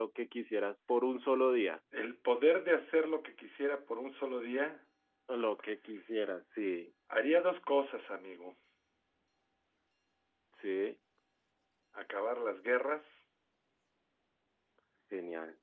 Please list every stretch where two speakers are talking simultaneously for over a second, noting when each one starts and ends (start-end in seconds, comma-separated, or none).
none